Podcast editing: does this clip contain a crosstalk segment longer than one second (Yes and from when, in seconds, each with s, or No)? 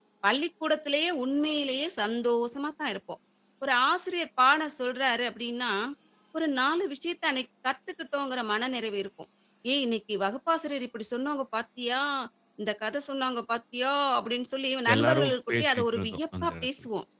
Yes, from 14.9 s